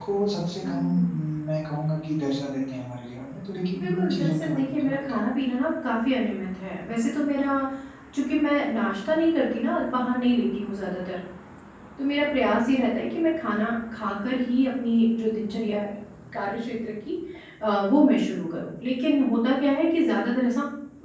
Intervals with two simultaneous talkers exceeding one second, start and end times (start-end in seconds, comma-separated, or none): 3.8-5.2